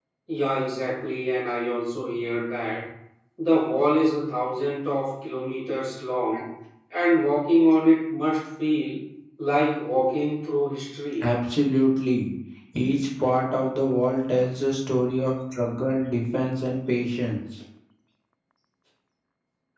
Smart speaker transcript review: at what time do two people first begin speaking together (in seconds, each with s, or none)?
none